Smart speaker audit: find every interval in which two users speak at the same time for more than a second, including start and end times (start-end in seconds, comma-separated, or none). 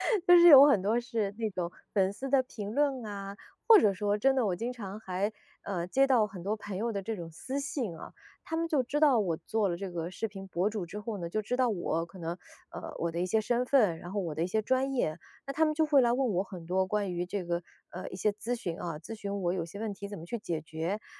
none